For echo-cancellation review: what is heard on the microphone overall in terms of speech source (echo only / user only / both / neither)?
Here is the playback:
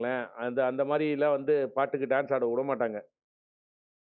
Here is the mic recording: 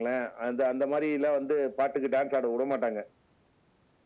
echo only